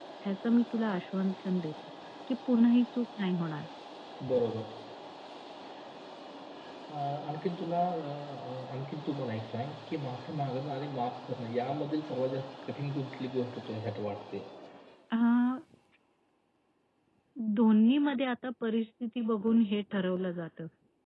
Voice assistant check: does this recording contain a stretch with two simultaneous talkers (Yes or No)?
No